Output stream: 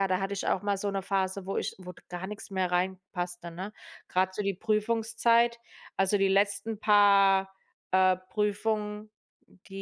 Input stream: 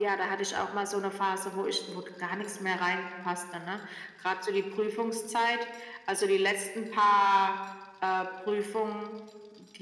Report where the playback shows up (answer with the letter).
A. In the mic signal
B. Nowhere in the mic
A